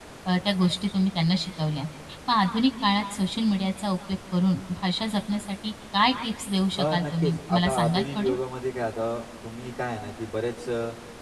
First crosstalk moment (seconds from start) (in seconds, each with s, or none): 6.8 s